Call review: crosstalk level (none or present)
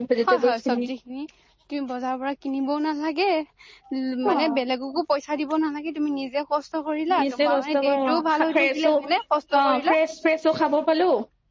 present